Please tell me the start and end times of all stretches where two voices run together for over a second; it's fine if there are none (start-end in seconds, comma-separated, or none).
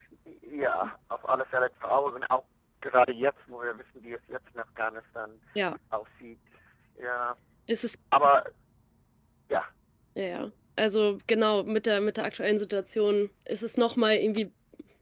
none